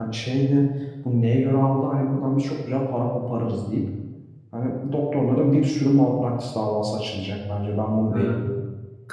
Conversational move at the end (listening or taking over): taking over